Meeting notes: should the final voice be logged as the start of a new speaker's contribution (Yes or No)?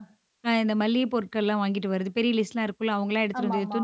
No